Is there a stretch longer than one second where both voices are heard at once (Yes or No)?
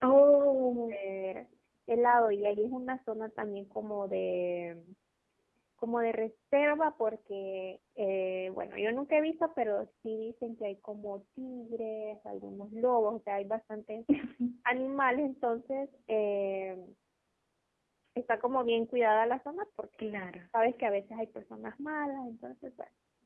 No